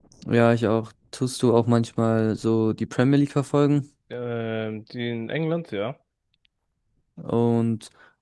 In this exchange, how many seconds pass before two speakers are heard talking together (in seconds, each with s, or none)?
none